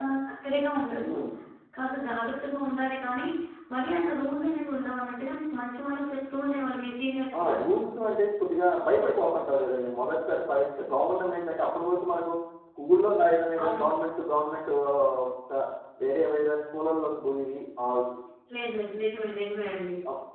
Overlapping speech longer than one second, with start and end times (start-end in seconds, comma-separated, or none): none